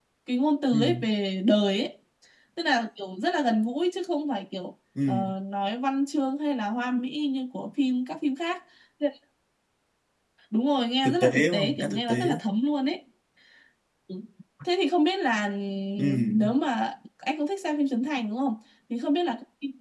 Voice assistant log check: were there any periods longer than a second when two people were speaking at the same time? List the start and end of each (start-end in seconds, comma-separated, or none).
11.0-12.4